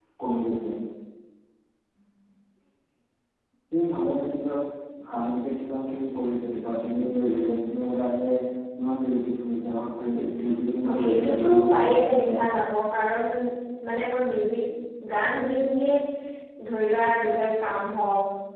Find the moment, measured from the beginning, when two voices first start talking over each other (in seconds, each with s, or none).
10.9 s